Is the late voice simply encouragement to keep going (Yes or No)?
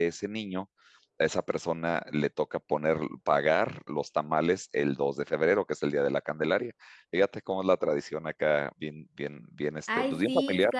No